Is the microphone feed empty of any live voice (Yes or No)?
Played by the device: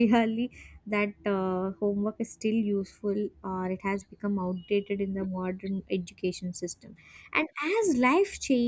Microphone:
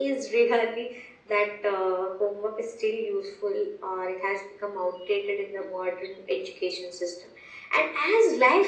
Yes